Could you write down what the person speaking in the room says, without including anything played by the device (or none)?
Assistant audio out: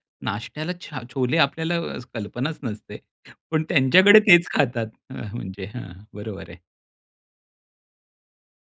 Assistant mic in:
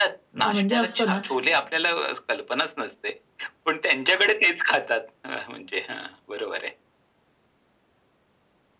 अ, म्हणजे असतं ना,